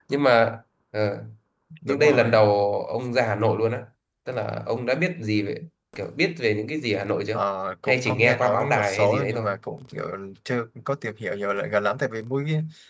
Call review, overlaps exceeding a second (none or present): present